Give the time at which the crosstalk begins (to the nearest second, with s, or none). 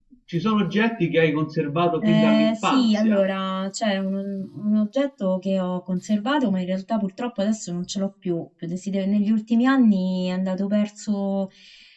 2 s